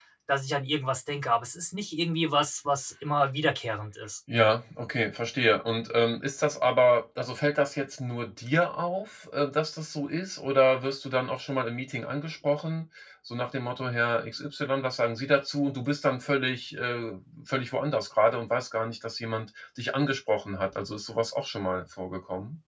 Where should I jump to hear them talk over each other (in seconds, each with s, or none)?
none